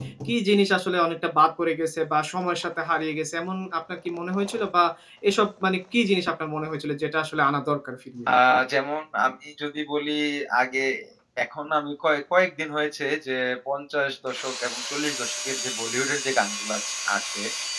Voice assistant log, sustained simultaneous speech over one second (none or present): none